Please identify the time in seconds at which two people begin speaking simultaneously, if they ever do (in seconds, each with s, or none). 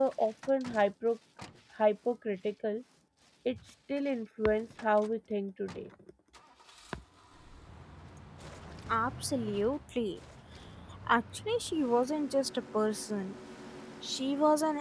none